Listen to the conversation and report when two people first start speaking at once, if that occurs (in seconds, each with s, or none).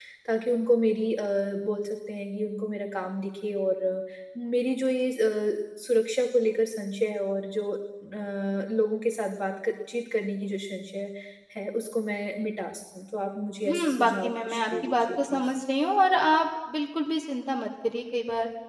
13.6 s